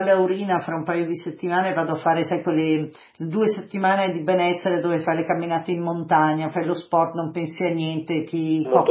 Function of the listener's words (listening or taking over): listening